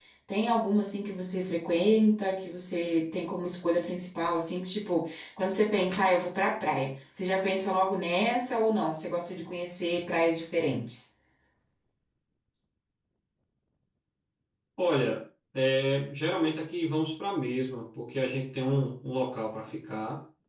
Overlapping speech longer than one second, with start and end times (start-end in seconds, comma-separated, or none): none